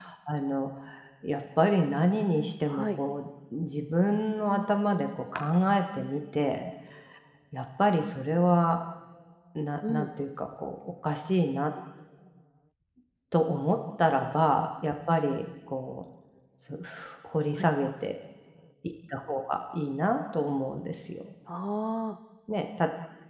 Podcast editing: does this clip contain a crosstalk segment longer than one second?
No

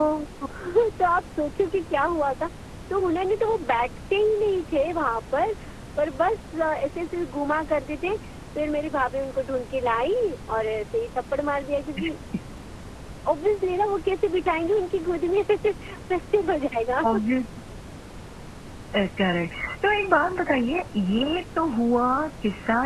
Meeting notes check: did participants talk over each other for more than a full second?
No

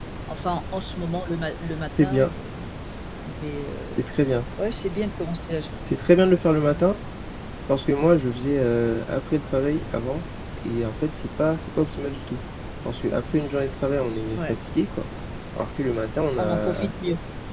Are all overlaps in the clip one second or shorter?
Yes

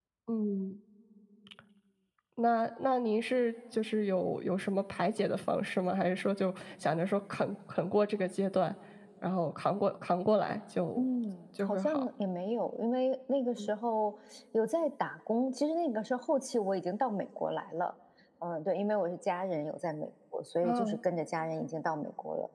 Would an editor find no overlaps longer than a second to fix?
Yes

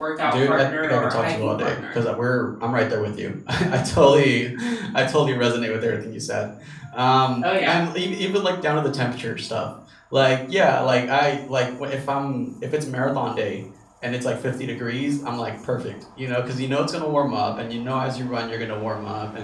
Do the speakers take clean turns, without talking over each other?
No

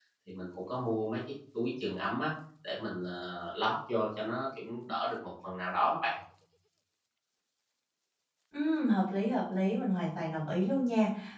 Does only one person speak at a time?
Yes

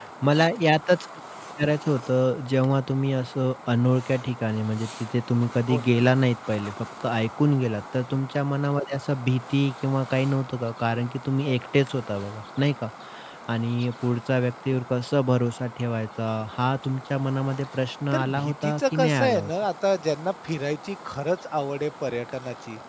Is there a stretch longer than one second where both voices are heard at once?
Yes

